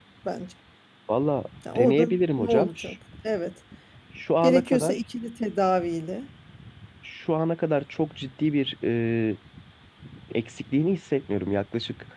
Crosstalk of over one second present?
Yes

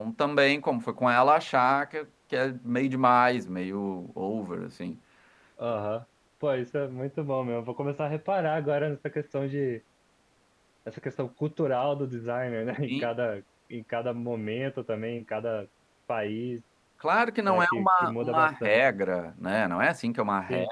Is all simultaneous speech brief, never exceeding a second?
No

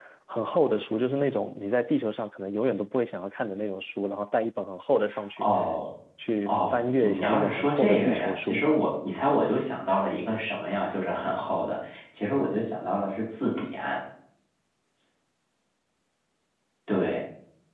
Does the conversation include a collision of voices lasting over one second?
Yes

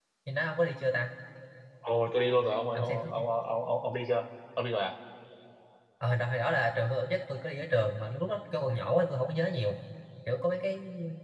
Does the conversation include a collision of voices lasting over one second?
No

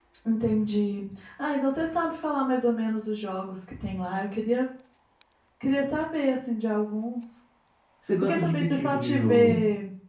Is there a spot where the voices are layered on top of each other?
Yes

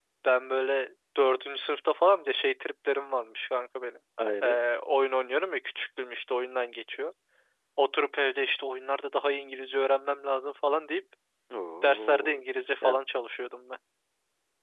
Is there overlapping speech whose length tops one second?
No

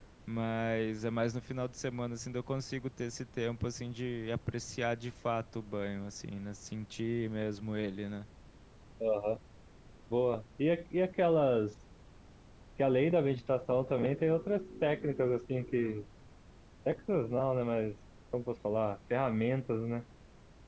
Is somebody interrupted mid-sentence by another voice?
No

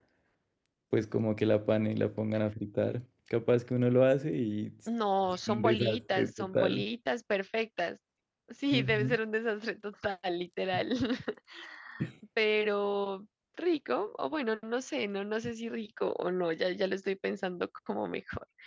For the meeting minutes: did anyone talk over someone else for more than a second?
Yes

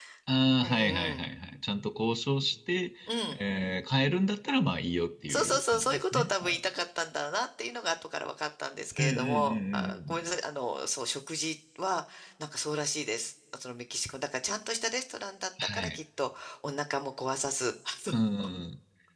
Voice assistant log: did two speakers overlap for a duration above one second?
Yes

